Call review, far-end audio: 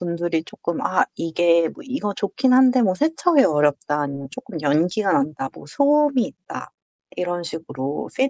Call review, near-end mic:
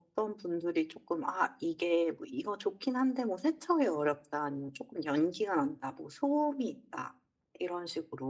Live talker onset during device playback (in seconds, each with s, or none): none